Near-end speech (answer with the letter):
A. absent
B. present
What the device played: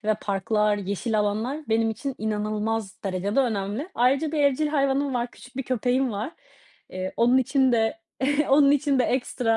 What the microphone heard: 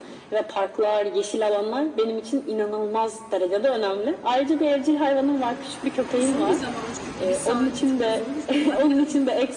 B